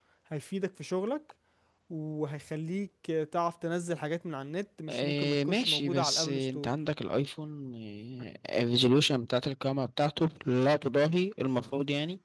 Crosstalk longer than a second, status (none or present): present